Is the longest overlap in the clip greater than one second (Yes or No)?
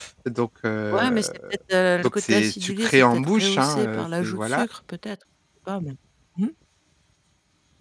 Yes